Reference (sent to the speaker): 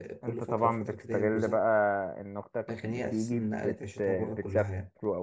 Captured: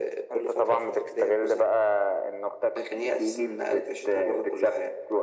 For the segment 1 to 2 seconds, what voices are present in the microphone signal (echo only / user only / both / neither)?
echo only